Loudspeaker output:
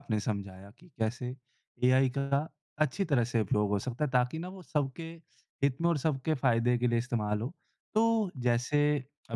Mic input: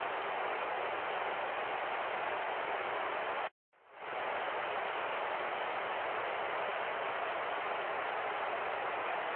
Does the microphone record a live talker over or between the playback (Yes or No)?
No